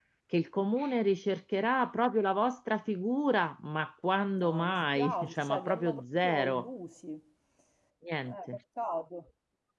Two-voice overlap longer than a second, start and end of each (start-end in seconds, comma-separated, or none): 4.4-6.7